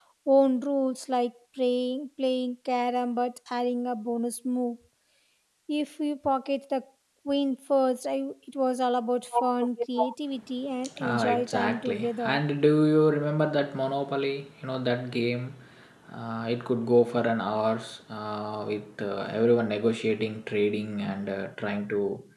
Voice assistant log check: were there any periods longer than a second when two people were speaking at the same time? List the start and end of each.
11.1-12.4

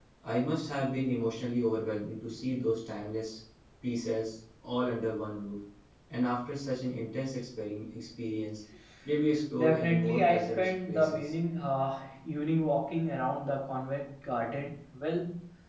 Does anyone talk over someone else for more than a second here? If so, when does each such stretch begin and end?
9.6-11.3

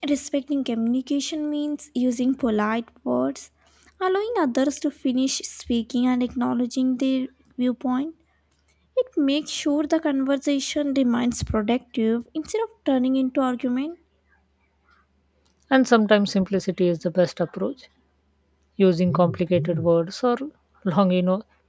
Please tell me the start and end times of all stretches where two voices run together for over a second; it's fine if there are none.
none

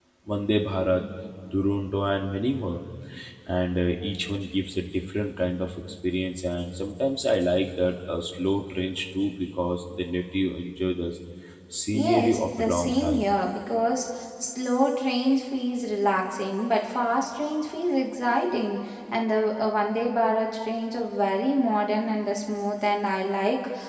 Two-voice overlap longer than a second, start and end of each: 11.9-13.3

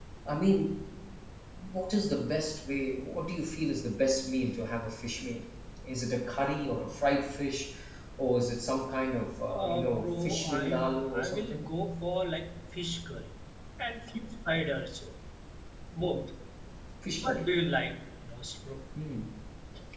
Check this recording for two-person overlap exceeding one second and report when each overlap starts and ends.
9.5-11.7

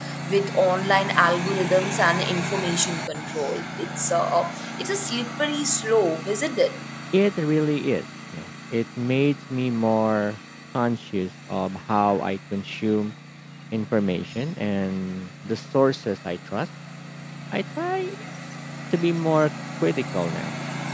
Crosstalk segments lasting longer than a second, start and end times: none

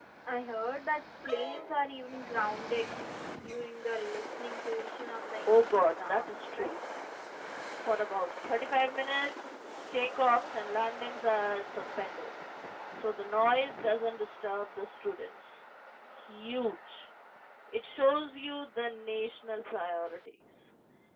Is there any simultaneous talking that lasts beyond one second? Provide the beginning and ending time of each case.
5.5-6.8

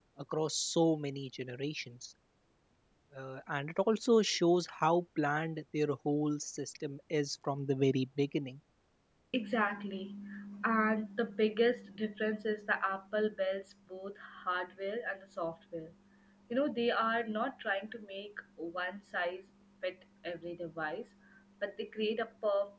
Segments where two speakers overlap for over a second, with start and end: none

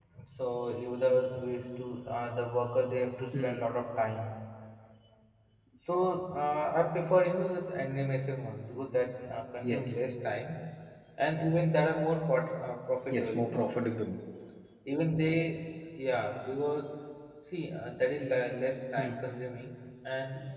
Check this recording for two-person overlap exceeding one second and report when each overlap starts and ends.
none

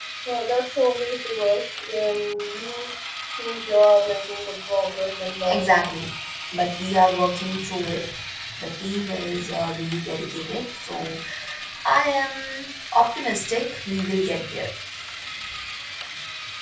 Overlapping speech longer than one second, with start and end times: none

